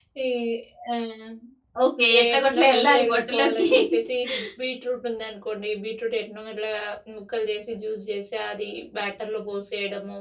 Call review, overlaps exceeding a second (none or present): present